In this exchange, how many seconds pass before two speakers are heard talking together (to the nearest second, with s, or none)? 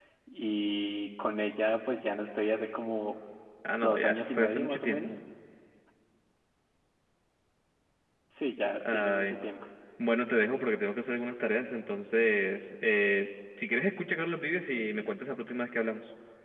4 s